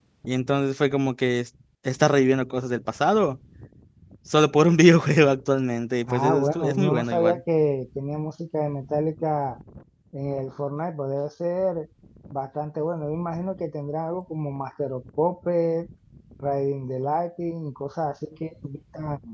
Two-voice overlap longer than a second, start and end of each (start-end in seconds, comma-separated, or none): 6.0-7.4